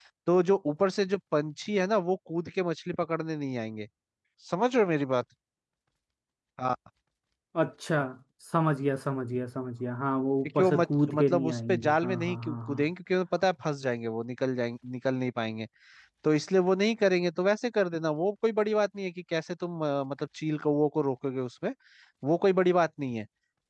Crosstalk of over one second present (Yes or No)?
Yes